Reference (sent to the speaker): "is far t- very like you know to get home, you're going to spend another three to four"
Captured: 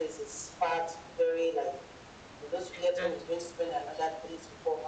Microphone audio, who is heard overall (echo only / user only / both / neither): both